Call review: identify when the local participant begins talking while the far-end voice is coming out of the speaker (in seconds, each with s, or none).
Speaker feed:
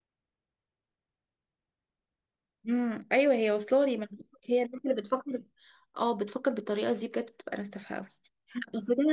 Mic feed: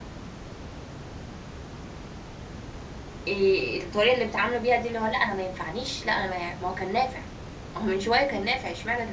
3.3 s